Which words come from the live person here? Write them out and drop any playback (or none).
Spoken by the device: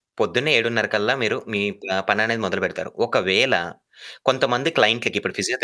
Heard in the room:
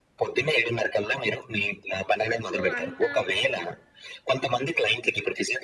సో, అంత